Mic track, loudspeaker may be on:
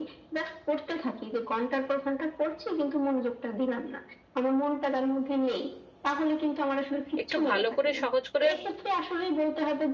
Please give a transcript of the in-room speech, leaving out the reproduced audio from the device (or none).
একটু ভালো করে সহজ করে